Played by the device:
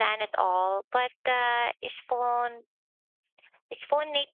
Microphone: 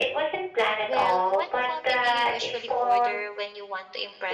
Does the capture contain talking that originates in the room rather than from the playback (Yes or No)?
Yes